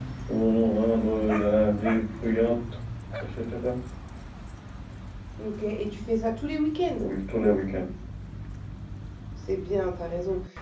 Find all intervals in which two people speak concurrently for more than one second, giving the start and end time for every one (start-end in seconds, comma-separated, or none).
none